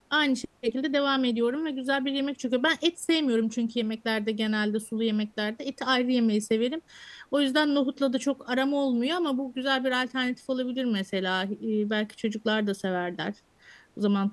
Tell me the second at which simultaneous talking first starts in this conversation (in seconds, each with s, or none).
none